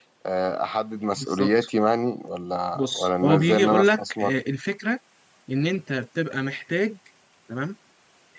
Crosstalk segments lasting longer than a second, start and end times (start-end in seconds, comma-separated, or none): 2.8-4.3